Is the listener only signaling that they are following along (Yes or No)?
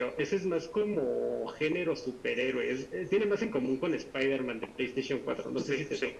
No